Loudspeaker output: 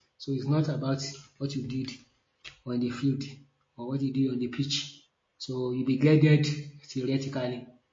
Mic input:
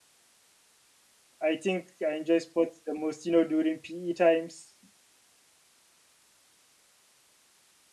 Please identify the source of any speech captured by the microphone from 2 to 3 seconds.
user only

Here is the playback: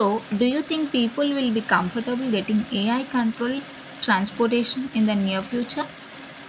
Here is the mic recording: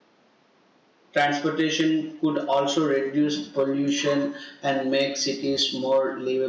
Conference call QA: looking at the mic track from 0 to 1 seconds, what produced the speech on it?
neither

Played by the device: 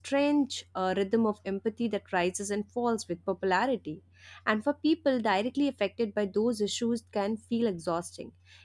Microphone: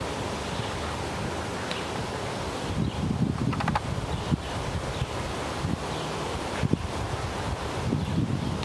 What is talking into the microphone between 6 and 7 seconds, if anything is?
neither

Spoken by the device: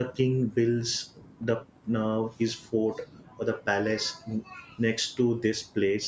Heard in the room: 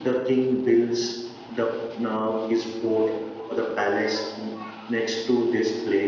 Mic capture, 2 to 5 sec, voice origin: echo only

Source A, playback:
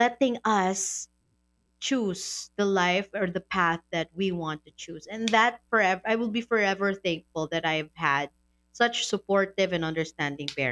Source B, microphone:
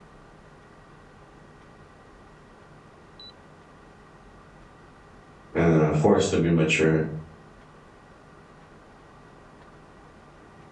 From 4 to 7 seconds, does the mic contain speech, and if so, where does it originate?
user only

